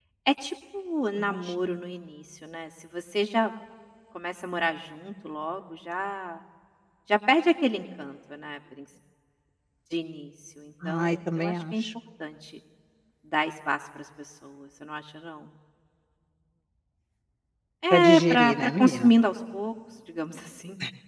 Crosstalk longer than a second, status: present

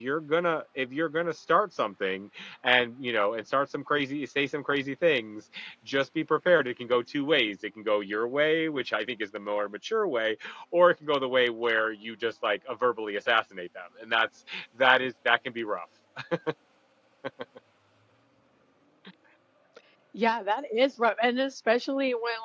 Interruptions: none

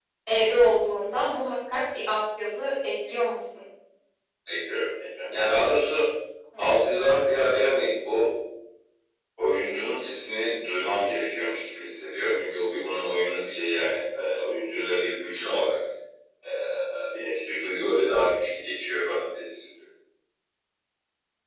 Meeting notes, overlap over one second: none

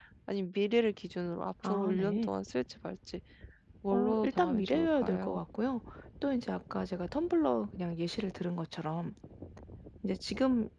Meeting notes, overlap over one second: present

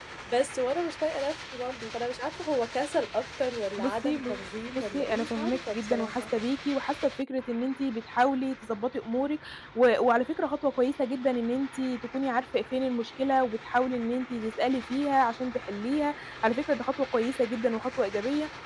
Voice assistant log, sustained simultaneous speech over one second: present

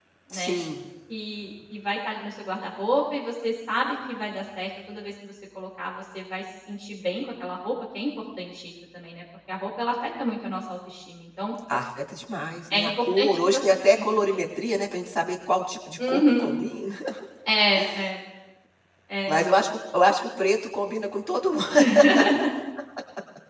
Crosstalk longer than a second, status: present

